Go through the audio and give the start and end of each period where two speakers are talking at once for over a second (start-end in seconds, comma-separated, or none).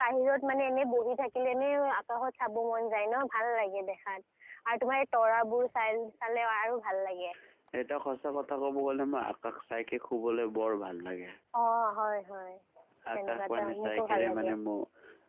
13.2-14.5